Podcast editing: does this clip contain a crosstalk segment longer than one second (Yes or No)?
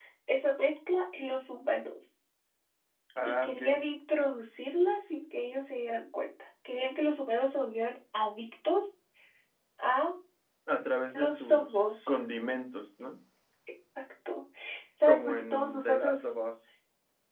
Yes